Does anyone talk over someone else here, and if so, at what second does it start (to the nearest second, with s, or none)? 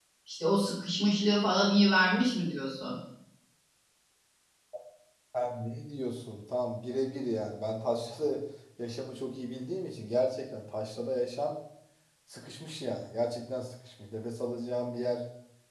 none